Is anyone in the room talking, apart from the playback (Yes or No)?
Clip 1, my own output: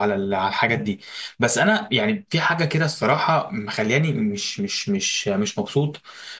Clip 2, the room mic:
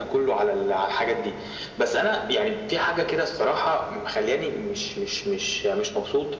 No